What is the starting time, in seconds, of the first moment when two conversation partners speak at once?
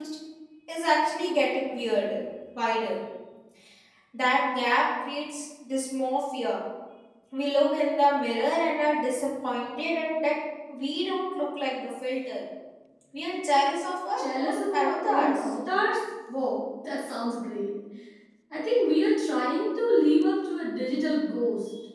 14 s

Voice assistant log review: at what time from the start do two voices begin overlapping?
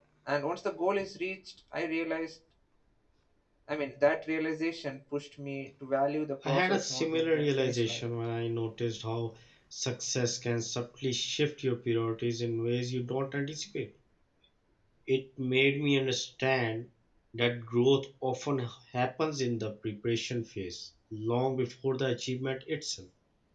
6 s

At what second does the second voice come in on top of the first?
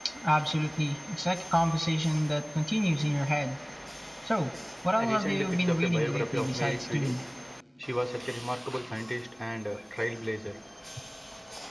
5 s

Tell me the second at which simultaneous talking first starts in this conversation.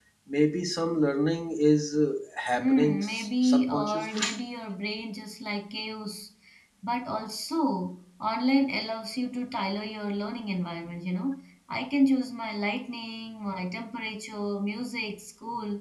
3 s

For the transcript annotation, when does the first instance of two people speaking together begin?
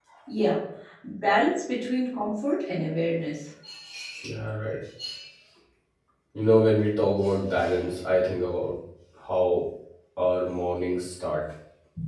none

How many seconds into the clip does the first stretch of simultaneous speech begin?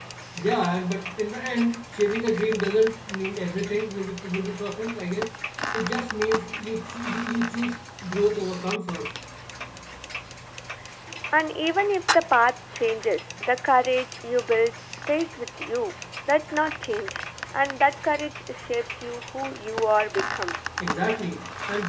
none

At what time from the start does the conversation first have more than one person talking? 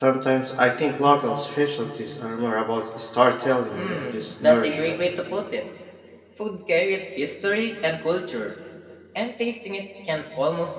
4 s

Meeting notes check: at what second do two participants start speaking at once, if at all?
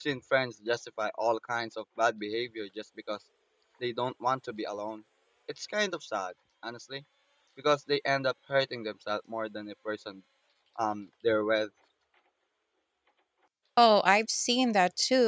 none

